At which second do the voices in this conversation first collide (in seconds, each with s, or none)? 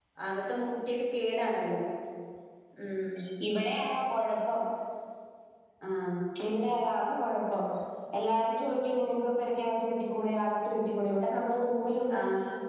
none